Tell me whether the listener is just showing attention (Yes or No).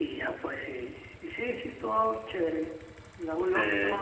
Yes